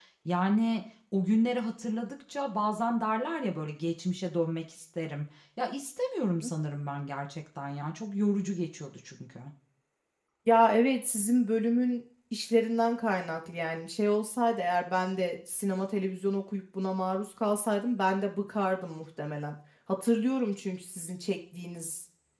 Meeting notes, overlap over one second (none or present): none